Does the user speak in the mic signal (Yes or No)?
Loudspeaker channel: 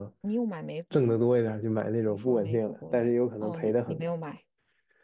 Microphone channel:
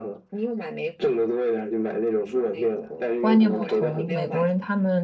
Yes